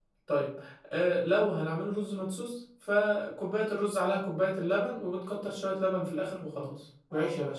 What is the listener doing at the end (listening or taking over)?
listening